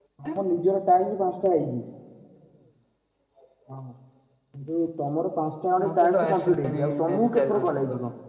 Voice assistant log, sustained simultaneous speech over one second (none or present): present